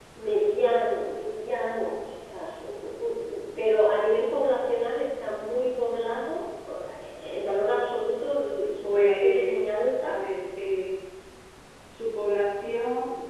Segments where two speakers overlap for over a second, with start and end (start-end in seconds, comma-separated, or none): 8.8-10.1